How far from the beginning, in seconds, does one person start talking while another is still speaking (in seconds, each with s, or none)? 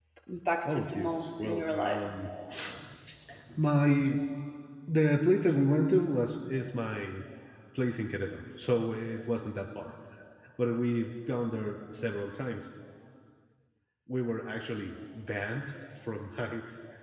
0.7 s